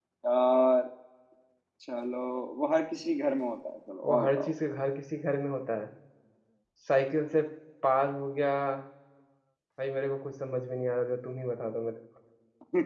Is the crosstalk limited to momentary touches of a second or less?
Yes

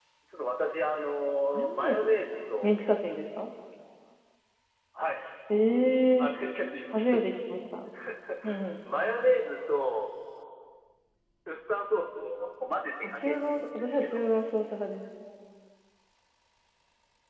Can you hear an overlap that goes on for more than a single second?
Yes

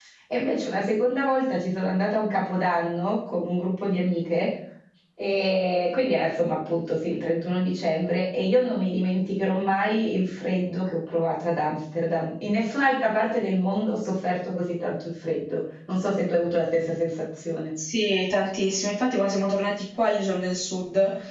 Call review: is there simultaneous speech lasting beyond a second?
No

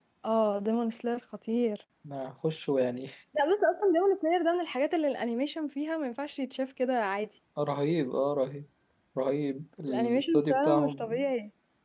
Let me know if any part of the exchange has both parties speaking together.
Yes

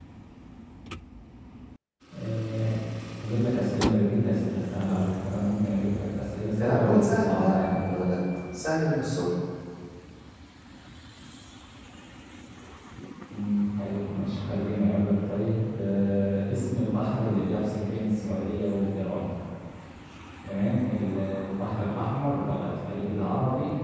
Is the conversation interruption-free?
No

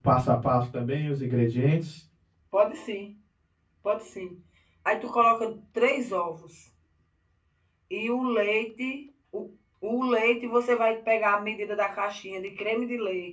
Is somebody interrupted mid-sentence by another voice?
No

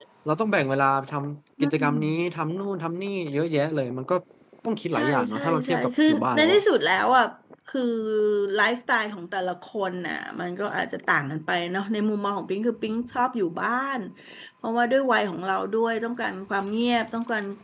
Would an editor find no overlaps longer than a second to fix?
No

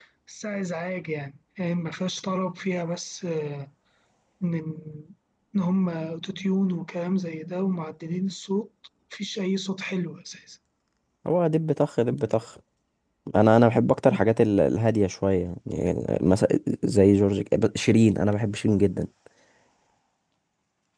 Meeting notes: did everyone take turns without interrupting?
Yes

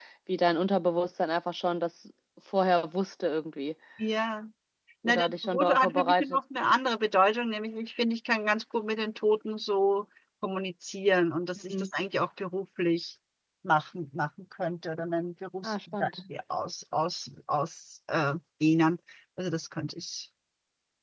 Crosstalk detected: Yes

